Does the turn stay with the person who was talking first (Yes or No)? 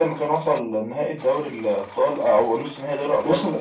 No